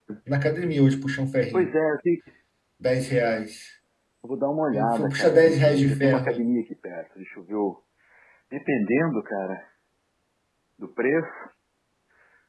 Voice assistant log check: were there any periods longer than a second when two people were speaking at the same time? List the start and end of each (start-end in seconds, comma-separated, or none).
4.7-6.5